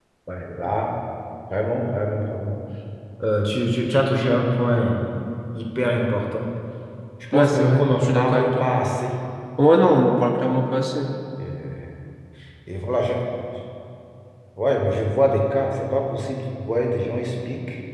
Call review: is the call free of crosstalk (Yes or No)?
No